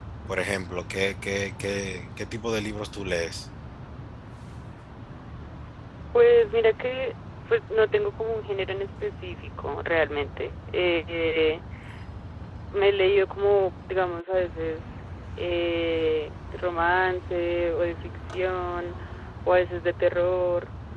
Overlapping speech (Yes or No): No